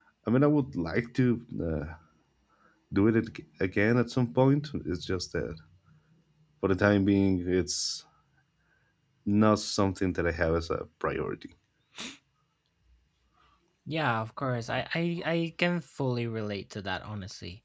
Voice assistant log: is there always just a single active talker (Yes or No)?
Yes